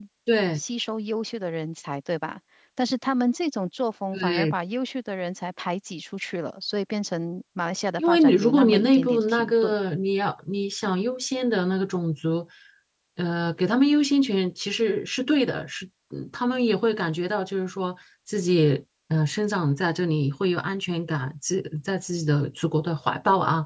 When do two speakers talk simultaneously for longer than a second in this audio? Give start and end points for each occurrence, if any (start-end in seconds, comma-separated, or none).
8.0-9.7